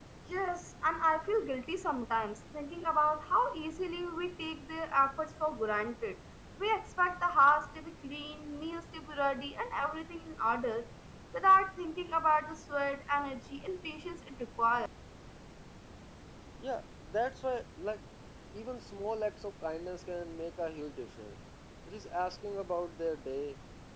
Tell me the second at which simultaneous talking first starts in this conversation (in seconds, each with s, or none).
none